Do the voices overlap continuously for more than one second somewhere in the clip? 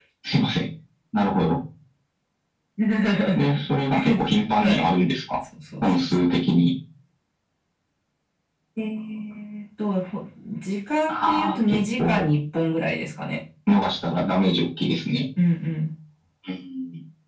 Yes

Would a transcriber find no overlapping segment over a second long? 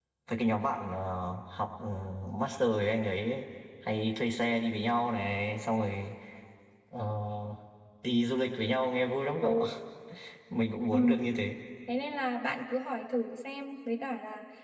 Yes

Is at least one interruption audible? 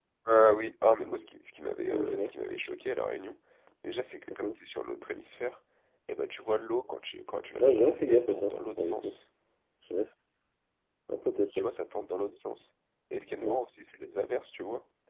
Yes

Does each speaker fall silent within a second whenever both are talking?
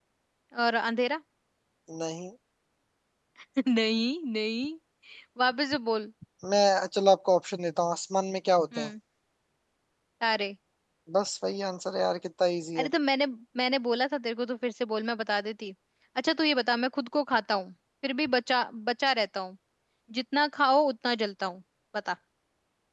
Yes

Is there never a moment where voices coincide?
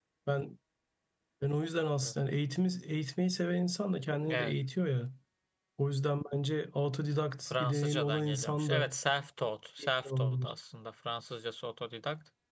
No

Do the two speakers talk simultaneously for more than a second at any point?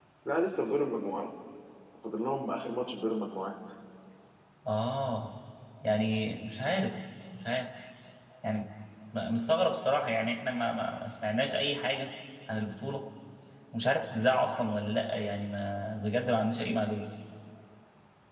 No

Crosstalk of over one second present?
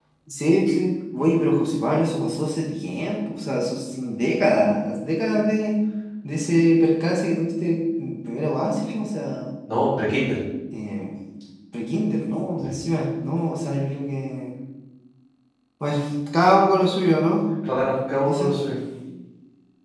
No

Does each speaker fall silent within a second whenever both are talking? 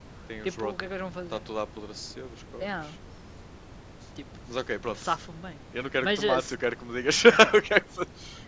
Yes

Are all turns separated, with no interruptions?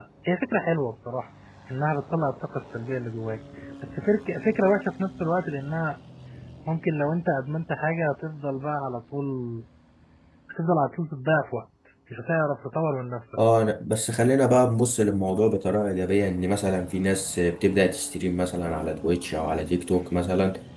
Yes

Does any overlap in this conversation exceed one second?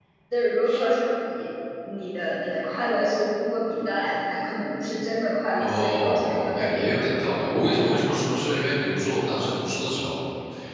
Yes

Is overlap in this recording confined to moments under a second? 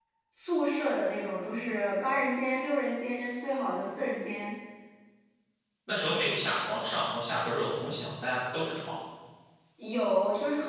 Yes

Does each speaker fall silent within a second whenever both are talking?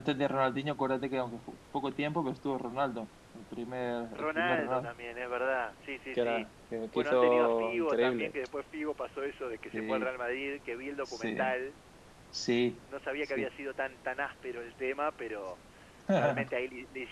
No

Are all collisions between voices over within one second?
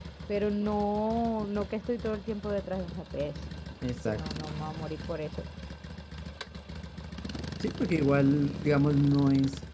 Yes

